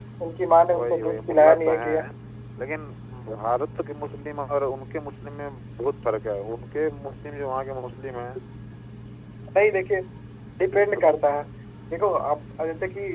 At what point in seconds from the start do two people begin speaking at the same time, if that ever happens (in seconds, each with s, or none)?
0.7 s